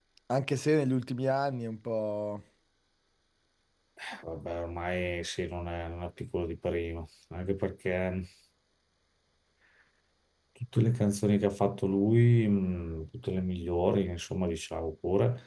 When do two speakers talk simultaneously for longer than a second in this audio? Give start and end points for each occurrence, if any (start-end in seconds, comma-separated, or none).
none